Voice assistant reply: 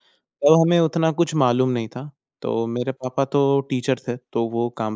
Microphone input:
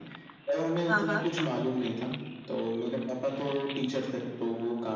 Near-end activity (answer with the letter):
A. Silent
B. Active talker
B